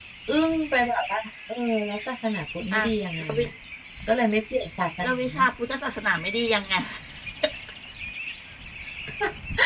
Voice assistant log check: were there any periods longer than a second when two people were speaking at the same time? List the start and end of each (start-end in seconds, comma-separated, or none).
none